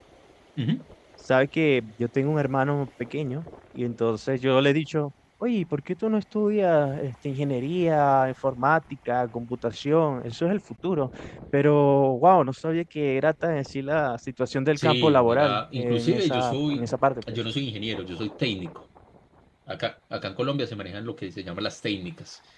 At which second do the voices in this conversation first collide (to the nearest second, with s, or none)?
15 s